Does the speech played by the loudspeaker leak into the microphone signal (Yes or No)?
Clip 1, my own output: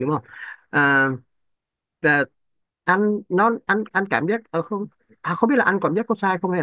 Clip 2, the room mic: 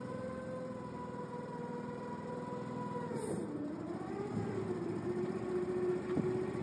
No